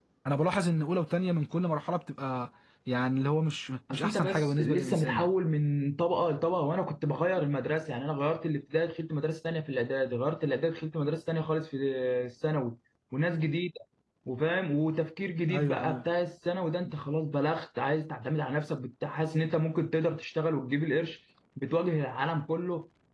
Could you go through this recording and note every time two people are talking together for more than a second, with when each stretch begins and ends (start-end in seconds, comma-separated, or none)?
3.9-5.3